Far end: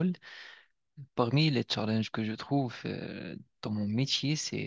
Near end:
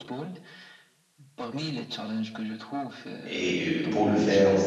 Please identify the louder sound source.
user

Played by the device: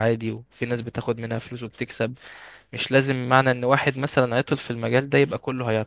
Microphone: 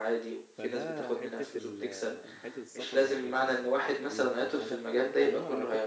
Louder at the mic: echo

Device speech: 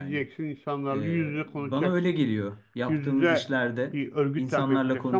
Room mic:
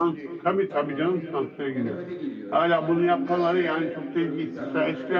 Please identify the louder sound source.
user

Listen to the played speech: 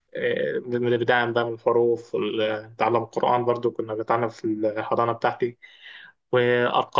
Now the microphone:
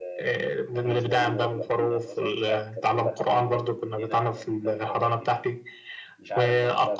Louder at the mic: echo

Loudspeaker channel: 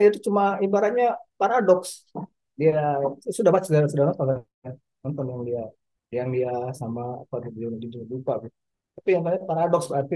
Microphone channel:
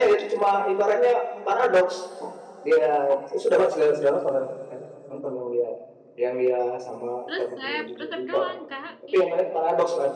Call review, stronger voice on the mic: echo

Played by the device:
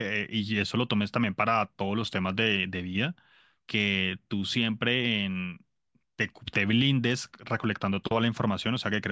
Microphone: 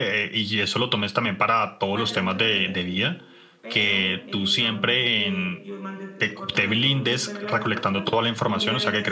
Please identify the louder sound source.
echo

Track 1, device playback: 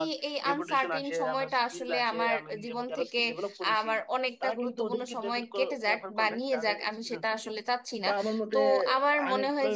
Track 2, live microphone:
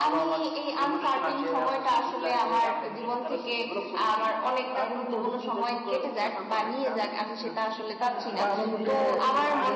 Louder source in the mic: echo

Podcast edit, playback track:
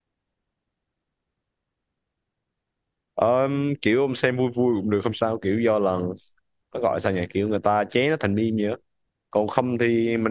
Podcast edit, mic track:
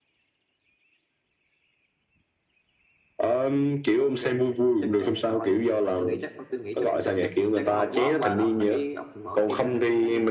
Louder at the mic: echo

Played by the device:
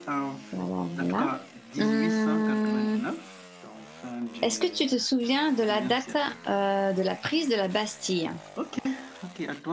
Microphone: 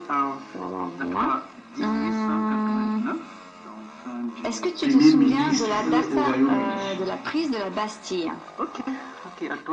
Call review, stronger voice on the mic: user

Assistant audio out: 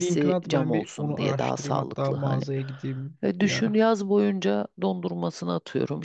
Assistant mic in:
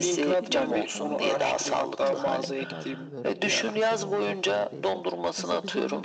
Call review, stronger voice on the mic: echo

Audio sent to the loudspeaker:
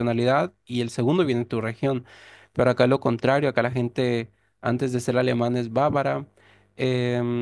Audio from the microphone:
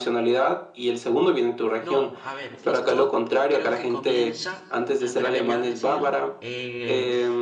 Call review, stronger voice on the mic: echo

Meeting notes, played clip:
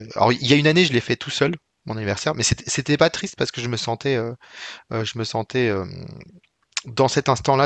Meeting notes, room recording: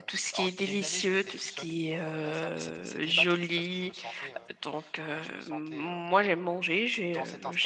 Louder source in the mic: user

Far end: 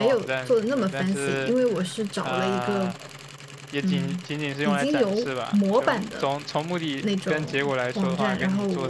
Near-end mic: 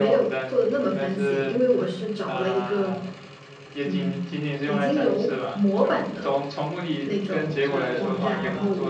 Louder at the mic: echo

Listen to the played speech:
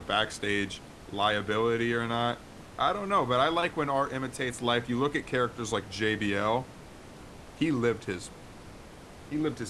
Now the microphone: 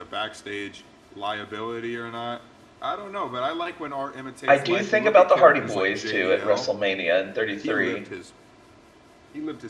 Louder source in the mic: user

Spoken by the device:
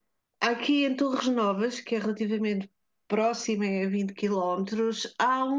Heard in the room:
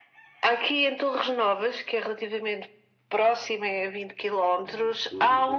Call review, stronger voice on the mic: echo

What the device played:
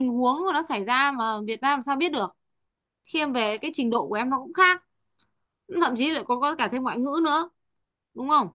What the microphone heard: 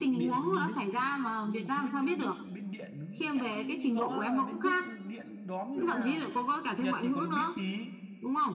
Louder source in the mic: echo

